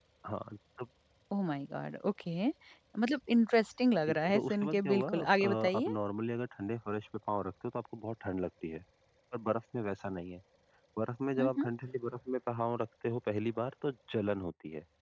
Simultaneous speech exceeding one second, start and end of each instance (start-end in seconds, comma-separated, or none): 4.1-5.9